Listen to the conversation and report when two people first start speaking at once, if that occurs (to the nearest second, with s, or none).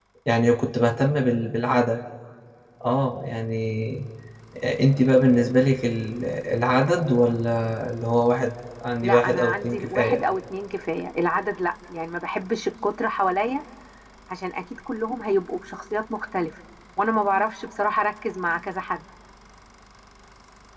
9 s